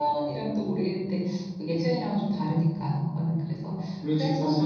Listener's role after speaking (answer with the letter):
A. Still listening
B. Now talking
B